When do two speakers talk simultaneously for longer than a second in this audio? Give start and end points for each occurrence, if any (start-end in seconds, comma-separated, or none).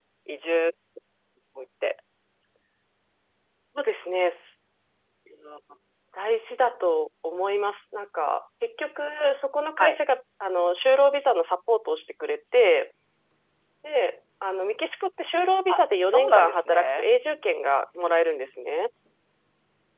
15.7-17.0